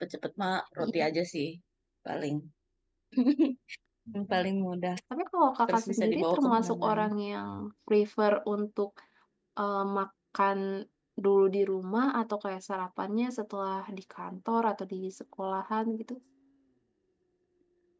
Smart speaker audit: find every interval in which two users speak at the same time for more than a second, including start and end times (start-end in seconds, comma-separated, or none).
5.7-7.0